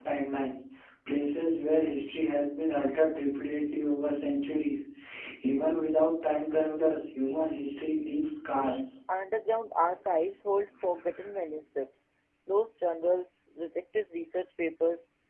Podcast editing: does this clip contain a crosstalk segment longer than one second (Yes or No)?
No